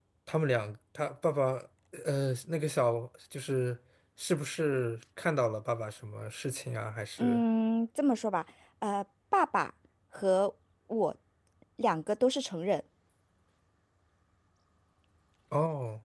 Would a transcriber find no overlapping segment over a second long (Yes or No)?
Yes